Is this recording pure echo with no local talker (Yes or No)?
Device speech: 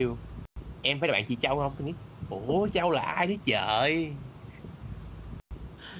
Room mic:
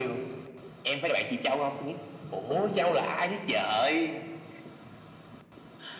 Yes